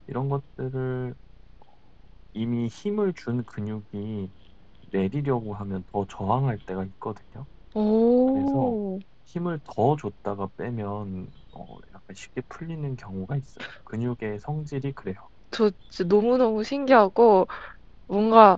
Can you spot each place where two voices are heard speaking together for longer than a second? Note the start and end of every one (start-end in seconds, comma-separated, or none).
none